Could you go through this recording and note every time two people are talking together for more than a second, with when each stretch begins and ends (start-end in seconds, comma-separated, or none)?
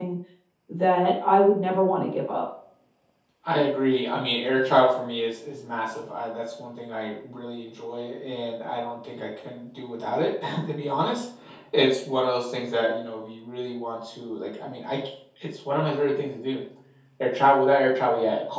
none